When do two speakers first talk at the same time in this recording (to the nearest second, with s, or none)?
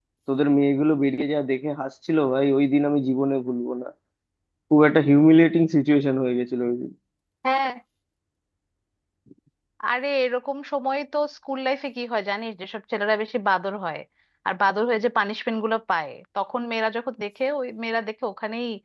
none